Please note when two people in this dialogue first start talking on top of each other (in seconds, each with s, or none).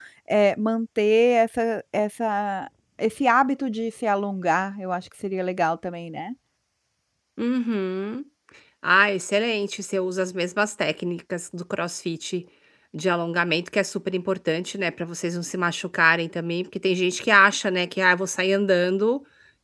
none